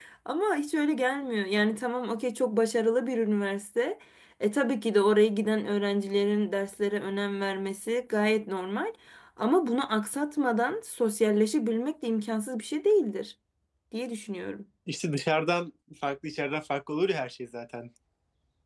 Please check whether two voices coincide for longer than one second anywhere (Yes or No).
No